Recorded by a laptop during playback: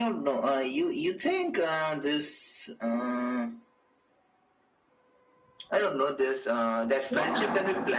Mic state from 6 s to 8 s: both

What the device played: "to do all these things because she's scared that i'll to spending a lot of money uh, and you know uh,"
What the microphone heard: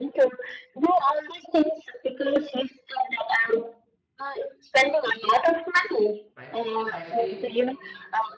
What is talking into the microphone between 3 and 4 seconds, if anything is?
echo only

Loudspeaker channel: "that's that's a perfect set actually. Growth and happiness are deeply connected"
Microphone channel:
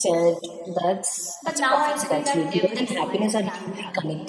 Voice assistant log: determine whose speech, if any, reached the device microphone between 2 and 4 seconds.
both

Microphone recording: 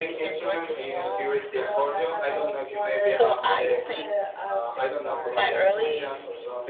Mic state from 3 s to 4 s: both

